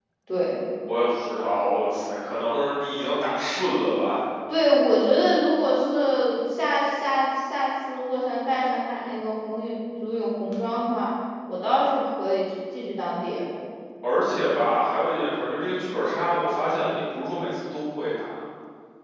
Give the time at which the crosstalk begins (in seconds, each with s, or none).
none